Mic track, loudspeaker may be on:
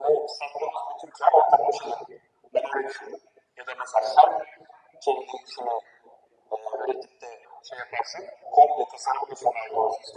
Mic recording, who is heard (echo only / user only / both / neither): echo only